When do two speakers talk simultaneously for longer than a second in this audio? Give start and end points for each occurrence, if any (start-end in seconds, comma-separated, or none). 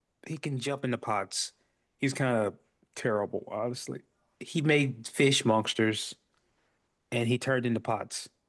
none